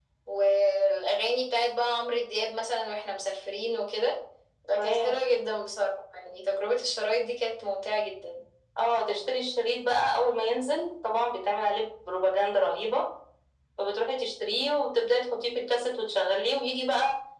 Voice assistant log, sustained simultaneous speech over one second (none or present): none